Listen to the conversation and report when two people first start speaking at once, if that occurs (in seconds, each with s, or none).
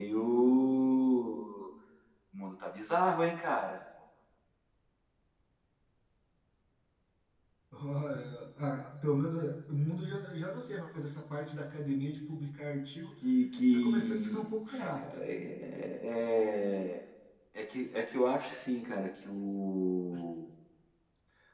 13.7 s